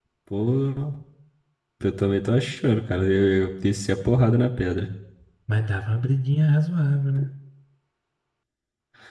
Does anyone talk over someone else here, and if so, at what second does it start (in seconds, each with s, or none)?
none